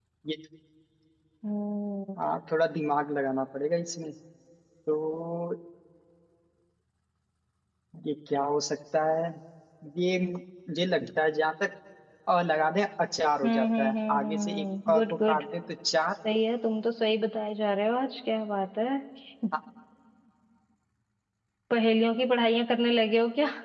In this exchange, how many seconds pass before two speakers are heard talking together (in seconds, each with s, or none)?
13.4 s